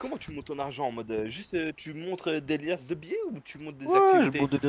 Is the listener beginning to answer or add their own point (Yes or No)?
Yes